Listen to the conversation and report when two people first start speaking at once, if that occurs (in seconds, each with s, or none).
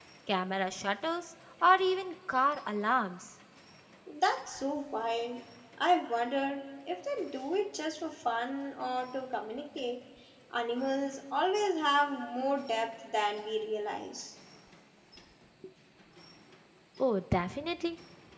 none